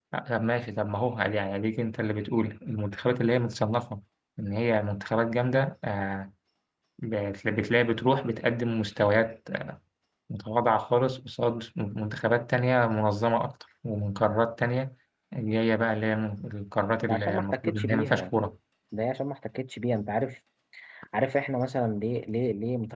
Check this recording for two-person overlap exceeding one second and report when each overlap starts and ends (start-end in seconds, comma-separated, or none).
17.0-18.3